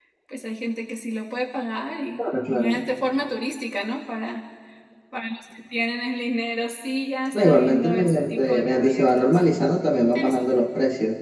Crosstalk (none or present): present